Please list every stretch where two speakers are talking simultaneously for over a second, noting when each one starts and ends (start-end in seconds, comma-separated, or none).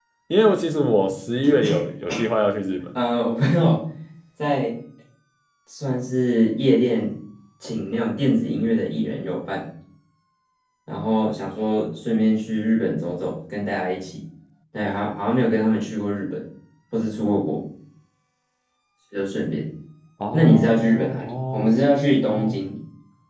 20.3-21.8